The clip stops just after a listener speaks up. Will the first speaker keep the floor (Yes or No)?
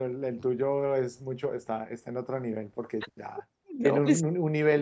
Yes